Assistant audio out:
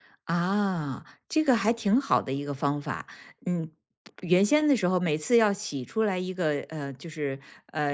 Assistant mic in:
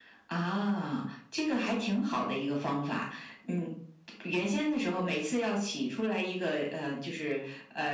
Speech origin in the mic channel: echo only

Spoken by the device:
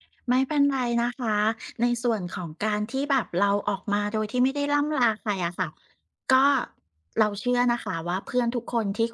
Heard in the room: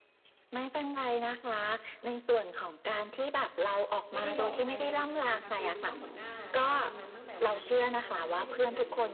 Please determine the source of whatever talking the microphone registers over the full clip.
both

